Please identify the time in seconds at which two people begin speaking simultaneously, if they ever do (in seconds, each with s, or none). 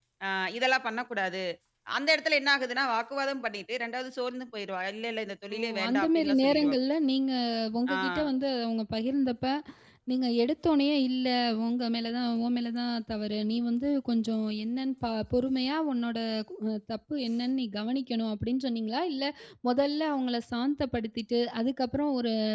5.5 s